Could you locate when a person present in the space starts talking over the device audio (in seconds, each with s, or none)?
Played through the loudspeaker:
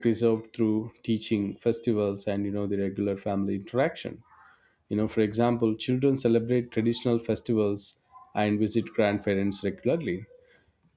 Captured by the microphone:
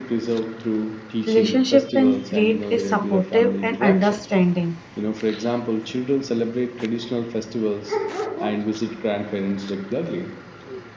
1.2 s